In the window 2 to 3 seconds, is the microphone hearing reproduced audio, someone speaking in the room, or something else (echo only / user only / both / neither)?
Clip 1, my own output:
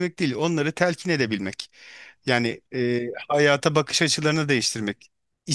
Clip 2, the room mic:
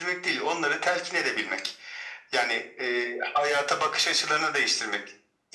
echo only